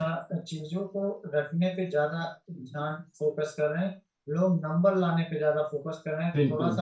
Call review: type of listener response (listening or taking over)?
listening